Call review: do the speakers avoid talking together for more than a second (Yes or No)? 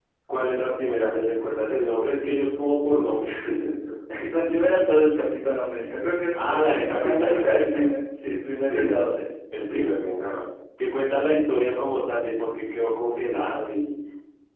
No